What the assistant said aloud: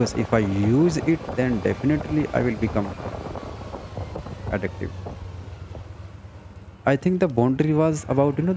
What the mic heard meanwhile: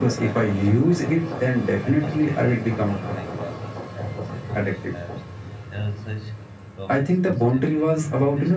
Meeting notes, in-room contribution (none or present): present